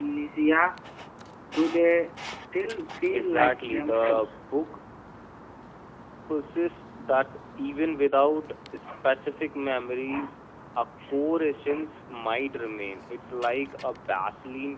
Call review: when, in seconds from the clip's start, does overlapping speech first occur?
3.1 s

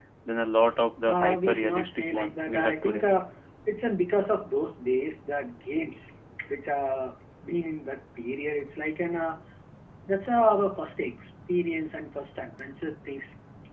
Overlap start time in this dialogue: 1.1 s

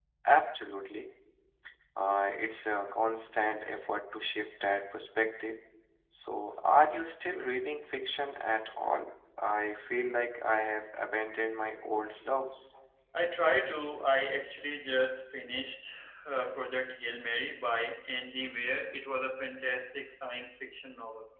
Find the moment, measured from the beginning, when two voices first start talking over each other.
none

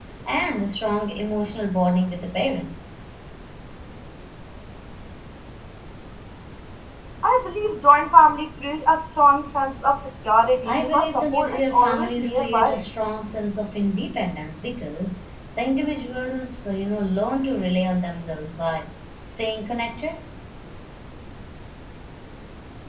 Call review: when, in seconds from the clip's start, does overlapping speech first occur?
10.6 s

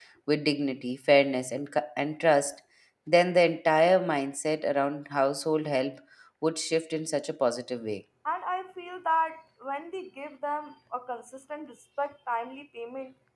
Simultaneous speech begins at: none

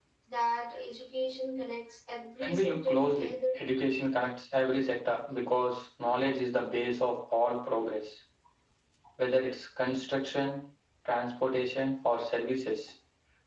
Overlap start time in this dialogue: 2.4 s

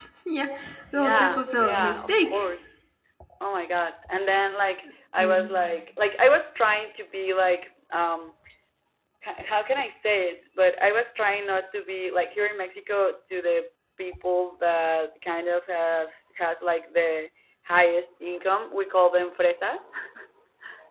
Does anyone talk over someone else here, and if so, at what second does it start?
0.9 s

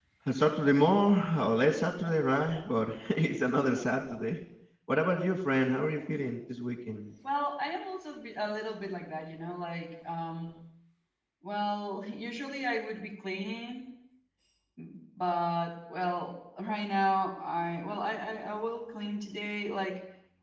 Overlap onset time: none

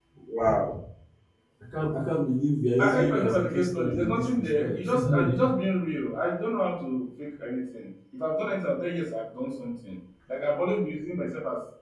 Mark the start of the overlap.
2.8 s

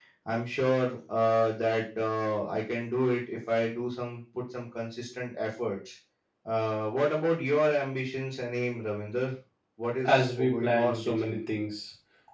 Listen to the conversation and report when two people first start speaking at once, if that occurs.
10.1 s

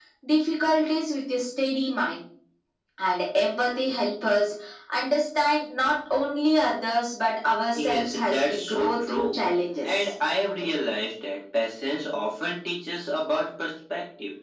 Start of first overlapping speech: 7.7 s

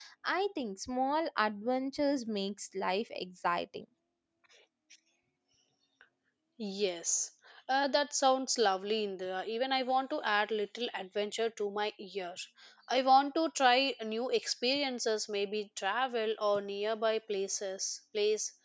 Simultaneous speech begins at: none

